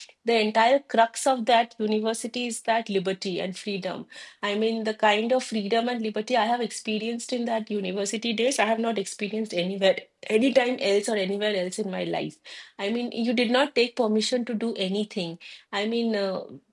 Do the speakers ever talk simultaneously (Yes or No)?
No